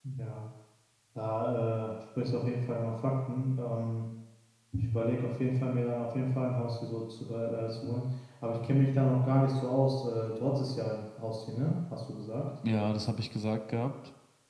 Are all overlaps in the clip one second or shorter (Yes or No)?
Yes